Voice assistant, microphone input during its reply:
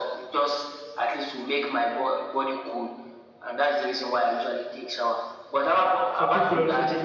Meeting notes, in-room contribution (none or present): present